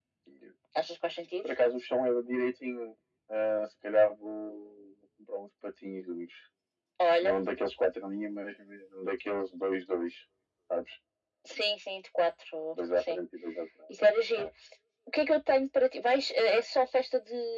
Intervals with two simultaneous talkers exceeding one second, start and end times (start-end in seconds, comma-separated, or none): none